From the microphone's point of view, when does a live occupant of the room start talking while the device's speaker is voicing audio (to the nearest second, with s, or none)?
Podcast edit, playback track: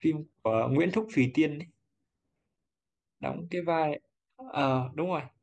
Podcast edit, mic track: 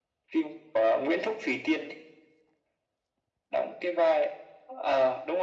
none